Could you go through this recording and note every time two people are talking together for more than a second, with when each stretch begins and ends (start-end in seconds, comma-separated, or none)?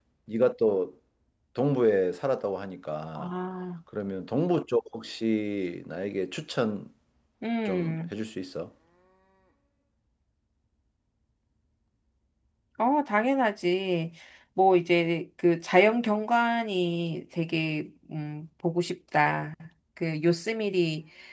none